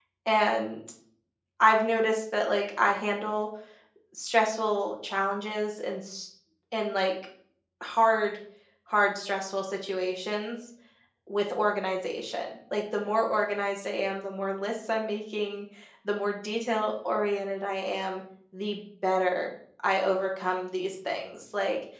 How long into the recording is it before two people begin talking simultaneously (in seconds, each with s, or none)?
none